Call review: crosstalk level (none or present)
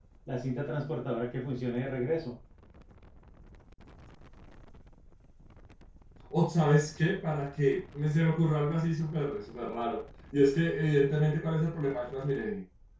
none